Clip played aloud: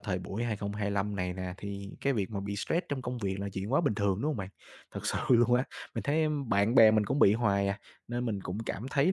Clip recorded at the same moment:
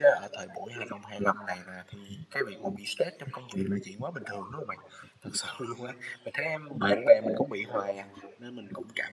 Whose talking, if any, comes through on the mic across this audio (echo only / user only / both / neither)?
echo only